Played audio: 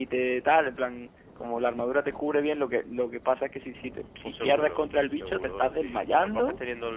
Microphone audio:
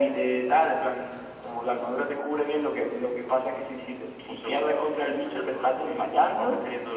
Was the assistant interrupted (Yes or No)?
No